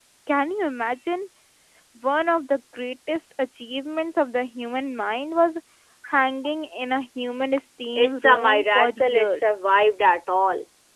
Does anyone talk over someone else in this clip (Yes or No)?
Yes